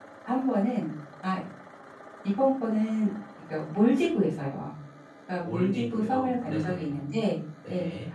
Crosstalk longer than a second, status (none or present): present